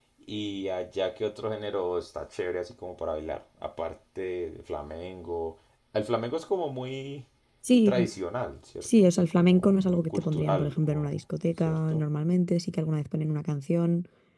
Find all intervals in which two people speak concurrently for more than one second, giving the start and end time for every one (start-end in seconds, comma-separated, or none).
8.8-11.1